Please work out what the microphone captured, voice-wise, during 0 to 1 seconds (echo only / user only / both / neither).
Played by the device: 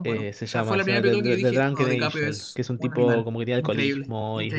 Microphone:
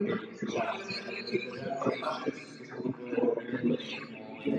echo only